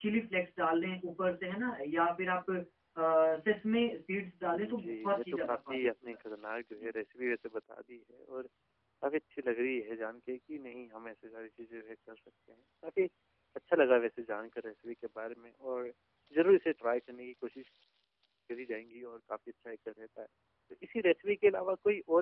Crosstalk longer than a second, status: present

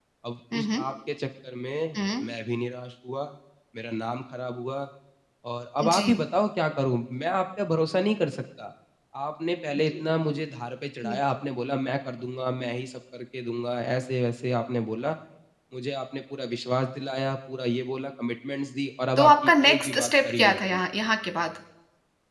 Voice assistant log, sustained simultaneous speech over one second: present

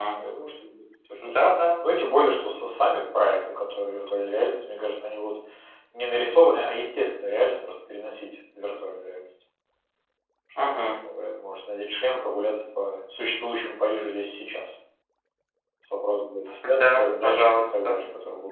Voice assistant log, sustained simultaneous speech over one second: present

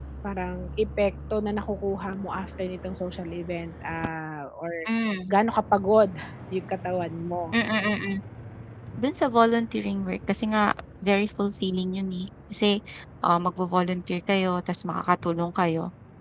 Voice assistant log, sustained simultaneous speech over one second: none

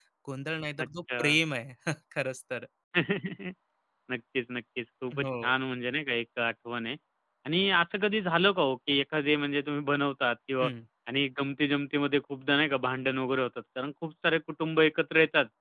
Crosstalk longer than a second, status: none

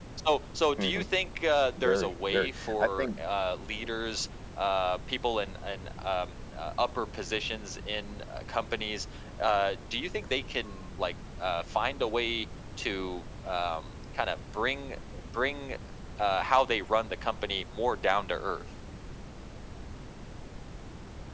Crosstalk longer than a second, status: present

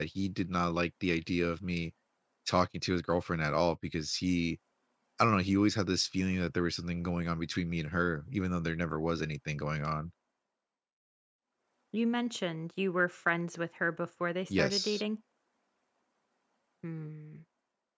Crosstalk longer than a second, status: none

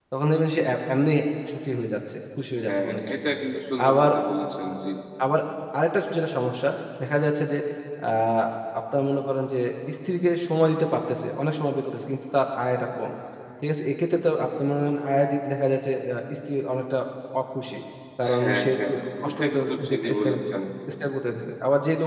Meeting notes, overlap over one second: present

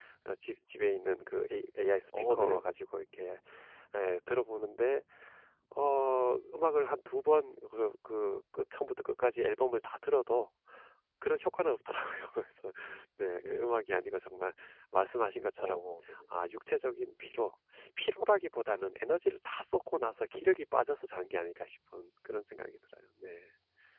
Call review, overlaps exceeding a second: none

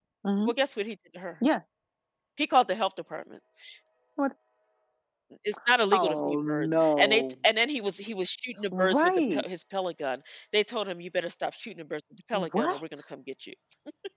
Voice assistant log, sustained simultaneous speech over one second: present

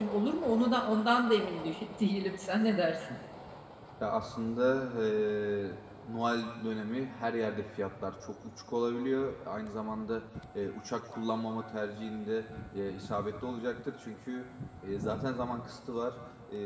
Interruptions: none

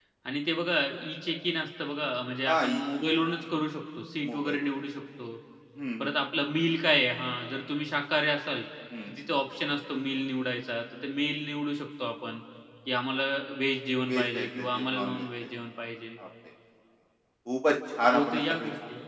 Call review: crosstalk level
present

